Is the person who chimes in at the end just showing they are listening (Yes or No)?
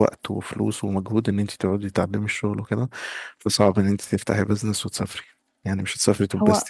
No